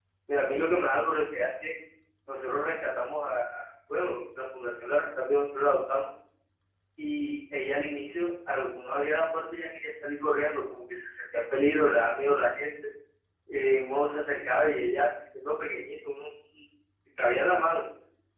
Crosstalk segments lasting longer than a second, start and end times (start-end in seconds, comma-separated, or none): none